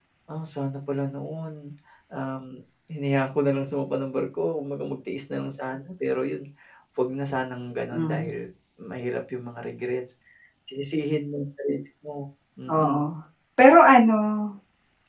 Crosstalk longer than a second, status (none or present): none